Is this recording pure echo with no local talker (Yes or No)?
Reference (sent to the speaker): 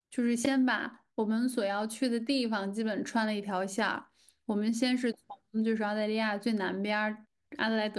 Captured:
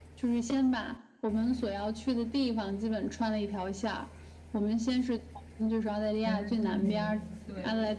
No